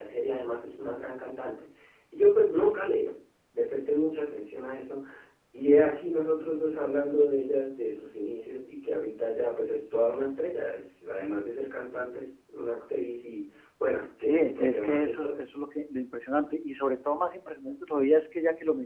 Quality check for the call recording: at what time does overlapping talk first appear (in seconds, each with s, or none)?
14.2 s